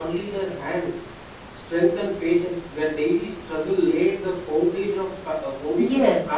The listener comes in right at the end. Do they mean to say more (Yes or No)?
No